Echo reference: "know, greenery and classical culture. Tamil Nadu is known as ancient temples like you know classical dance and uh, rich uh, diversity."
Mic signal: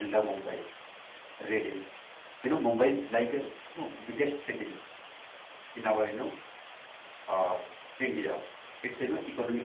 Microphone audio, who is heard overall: user only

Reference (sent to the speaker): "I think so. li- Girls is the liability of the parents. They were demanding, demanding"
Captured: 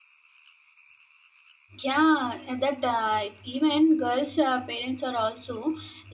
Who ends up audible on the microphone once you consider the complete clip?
user only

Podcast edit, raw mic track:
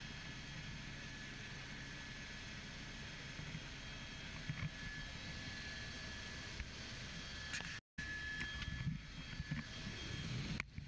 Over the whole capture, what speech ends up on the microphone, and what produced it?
neither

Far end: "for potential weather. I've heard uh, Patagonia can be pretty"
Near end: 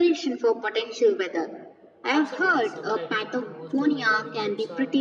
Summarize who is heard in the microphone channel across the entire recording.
both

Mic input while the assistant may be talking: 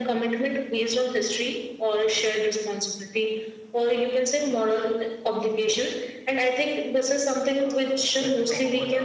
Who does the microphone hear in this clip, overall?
both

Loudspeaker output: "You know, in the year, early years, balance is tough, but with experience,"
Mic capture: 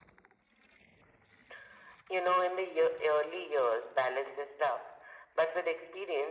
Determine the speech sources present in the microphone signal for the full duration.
echo only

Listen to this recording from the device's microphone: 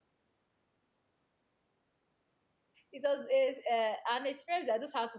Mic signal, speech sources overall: user only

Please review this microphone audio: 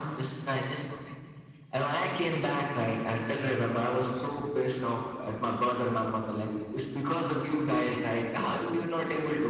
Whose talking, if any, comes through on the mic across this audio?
echo only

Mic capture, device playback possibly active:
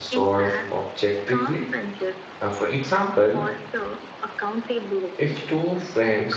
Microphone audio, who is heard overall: both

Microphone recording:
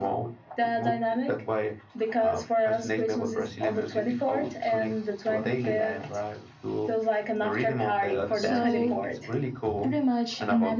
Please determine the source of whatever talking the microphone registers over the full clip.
both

